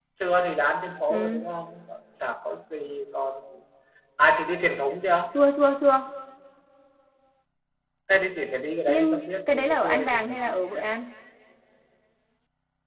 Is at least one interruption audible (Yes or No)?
Yes